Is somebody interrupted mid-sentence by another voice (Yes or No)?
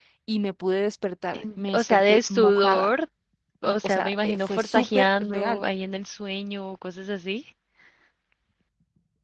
Yes